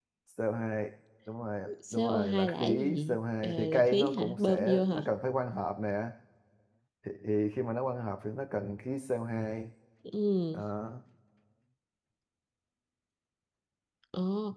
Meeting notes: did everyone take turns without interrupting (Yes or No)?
No